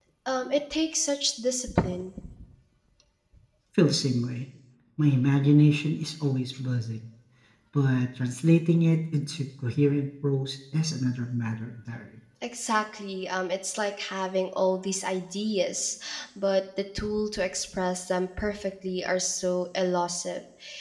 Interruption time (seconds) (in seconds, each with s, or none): none